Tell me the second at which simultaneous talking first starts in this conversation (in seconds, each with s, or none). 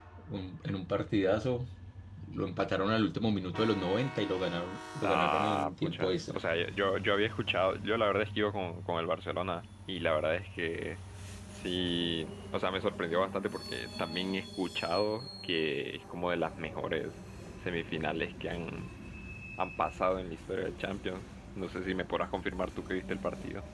5.0 s